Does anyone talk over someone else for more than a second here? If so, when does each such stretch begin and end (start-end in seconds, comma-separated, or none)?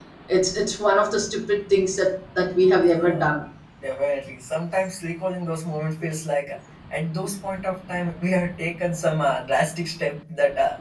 none